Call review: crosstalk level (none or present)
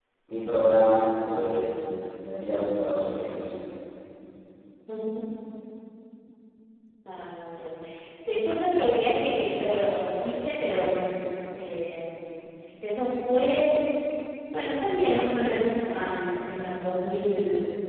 none